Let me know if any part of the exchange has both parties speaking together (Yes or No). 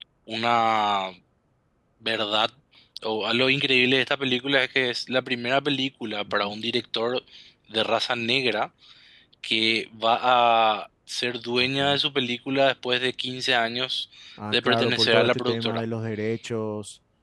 Yes